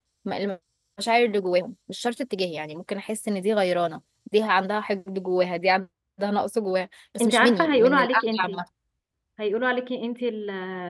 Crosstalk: present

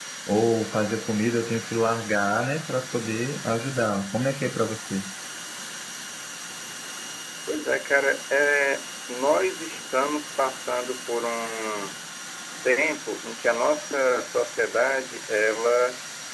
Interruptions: none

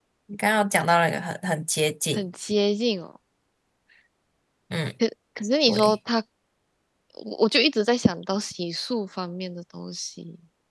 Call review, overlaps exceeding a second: none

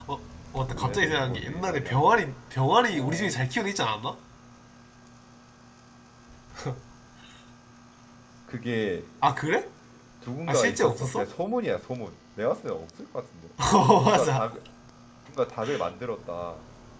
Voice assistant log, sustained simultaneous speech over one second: present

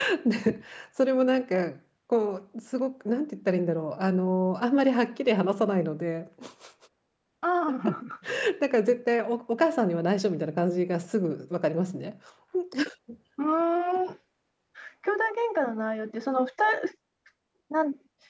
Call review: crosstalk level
none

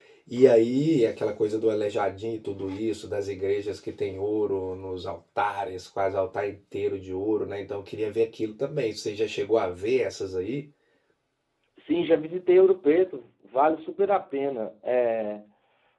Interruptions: none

